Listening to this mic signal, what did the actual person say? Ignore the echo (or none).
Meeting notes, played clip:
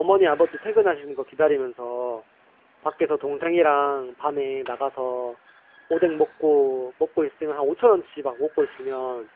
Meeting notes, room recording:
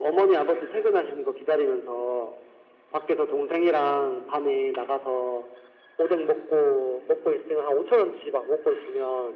none